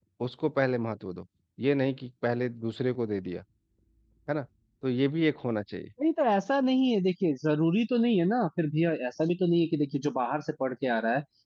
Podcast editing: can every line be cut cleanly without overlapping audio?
Yes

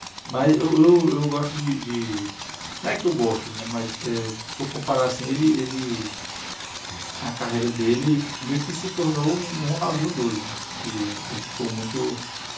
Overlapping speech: No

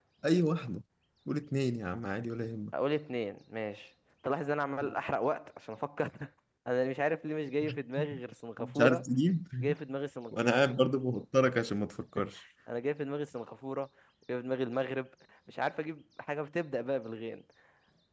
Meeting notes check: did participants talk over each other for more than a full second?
No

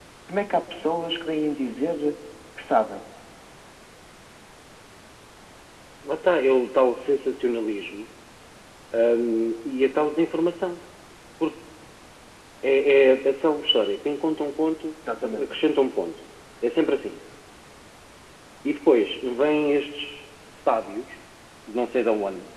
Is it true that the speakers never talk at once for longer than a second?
Yes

